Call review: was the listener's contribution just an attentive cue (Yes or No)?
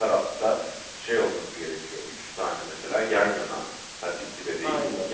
Yes